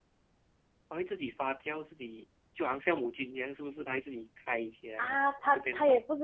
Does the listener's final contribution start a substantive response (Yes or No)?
Yes